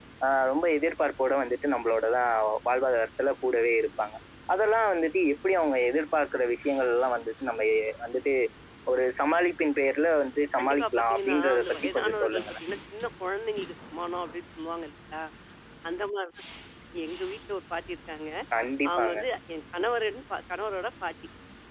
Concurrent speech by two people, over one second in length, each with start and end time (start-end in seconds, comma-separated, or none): 10.6-12.4